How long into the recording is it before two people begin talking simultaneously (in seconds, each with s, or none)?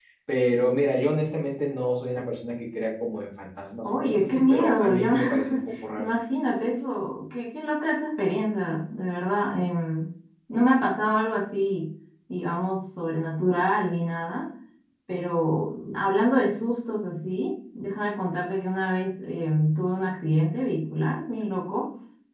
3.8 s